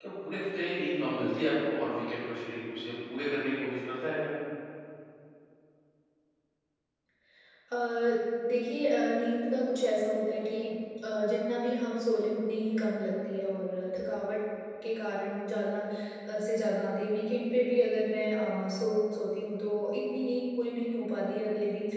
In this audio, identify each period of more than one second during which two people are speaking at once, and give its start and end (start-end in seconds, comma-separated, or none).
none